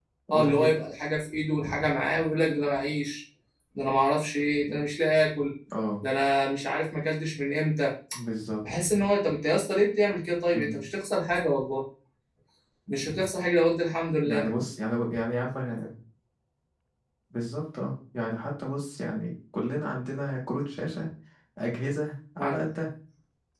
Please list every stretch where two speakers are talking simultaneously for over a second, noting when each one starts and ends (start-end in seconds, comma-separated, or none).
none